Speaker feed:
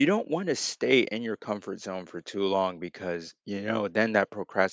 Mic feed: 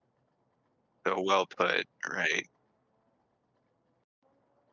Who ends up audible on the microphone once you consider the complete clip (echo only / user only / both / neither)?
user only